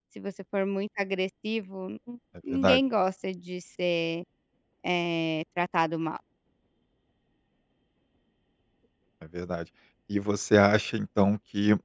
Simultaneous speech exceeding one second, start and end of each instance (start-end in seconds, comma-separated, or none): none